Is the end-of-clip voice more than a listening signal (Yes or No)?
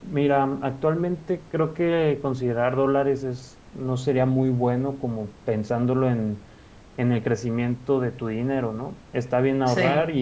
No